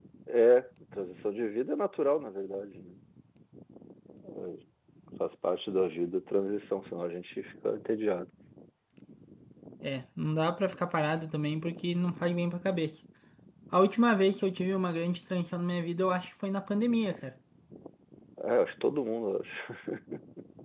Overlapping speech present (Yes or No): No